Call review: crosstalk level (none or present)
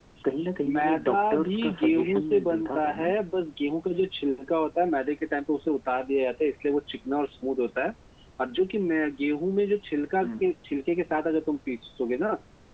present